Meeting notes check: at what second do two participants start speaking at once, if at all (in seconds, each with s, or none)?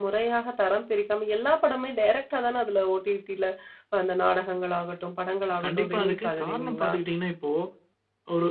5.6 s